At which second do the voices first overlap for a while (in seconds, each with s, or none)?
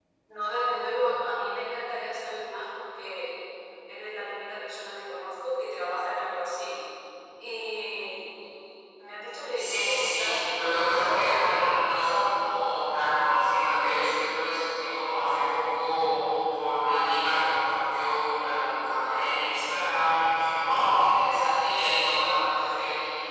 9.6 s